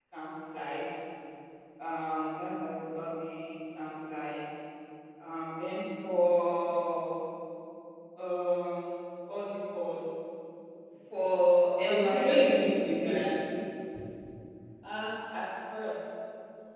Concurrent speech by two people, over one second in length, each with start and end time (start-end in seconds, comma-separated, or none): 11.9-13.3